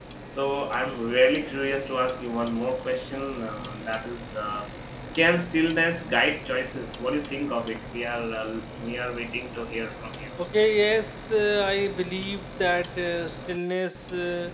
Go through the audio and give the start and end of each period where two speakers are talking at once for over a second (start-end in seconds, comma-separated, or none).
none